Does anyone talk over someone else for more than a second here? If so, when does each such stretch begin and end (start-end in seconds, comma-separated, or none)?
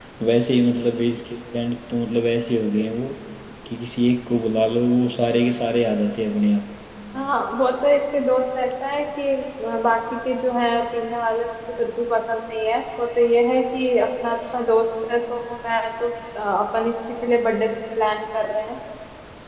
none